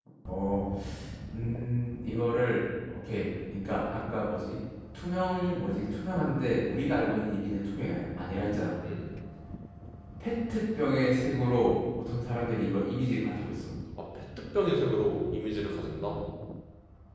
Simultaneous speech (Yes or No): No